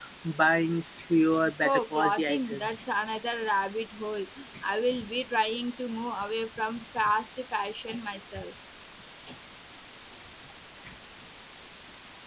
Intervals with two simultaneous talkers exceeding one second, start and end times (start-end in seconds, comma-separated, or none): 1.6-2.9